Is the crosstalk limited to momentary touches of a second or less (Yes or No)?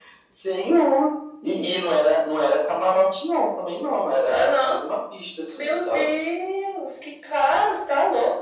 Yes